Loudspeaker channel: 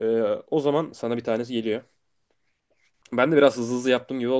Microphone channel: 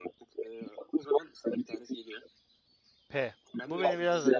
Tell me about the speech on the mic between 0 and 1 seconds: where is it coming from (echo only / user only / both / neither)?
echo only